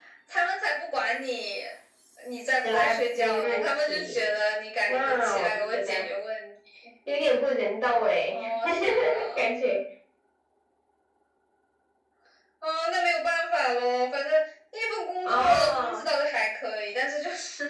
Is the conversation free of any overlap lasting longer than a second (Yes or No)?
No